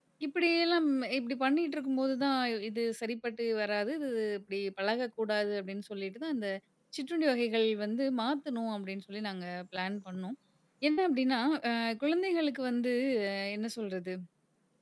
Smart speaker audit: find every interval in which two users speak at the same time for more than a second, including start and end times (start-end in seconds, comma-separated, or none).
none